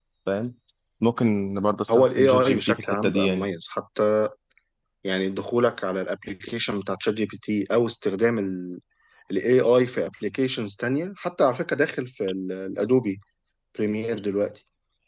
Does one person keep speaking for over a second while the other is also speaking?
Yes, from 1.9 s

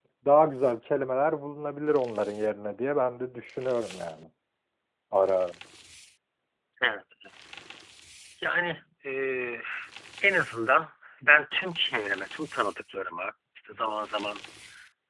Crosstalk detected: No

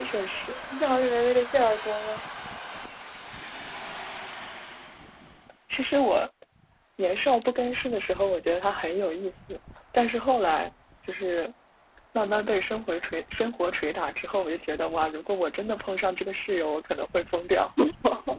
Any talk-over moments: No

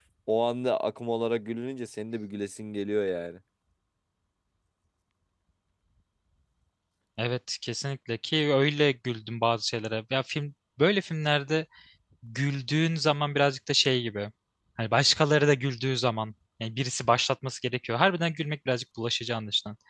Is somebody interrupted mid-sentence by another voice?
No

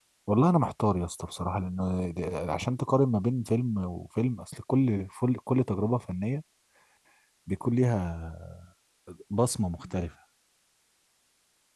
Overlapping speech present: No

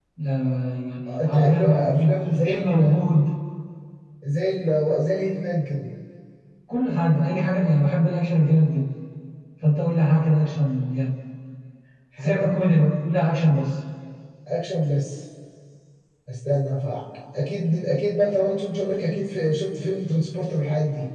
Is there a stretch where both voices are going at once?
Yes, from 1.1 s

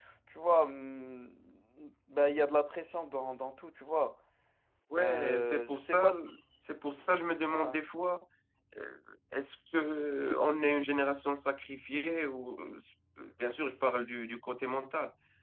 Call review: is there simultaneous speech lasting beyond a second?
Yes, from 4.9 s

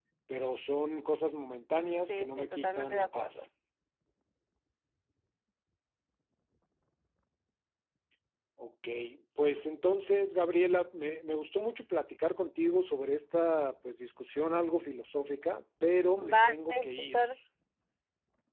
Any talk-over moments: Yes, from 2.0 s

